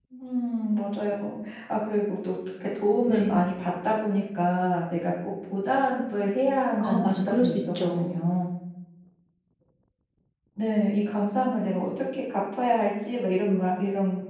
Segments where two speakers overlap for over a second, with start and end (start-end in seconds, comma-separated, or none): 6.8-8.2